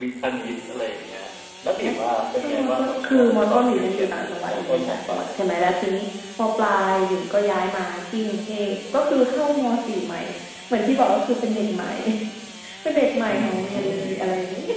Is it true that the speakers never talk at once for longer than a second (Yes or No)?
No